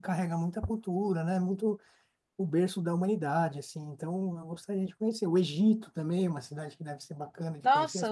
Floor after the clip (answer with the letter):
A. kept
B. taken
B